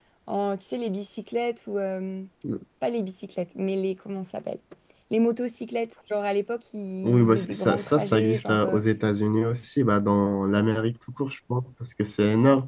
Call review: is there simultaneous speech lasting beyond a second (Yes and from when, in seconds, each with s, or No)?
Yes, from 7.0 s